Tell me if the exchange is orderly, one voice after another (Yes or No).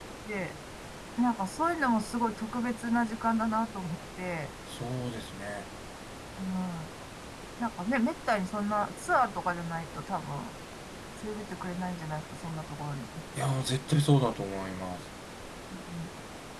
Yes